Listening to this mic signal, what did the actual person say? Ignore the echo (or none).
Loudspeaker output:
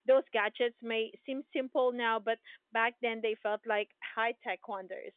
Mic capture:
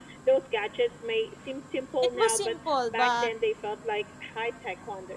it was simple, but